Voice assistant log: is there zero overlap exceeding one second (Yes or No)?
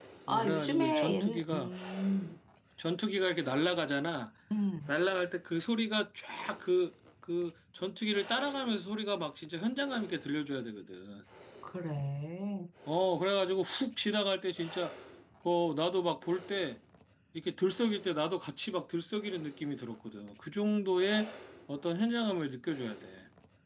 No